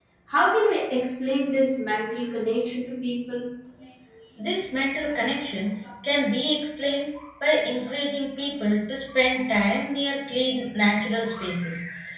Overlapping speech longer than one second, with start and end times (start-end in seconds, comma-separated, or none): none